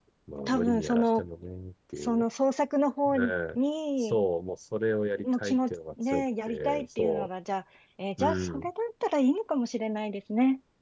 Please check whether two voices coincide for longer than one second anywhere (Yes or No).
Yes